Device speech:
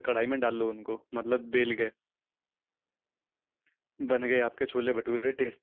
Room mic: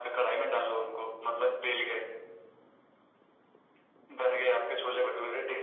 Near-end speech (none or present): none